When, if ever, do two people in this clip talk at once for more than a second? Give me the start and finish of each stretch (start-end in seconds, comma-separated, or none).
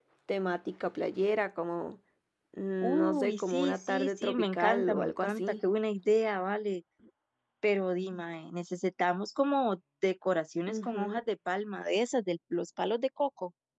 2.8-5.5